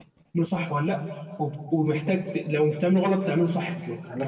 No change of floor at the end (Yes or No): No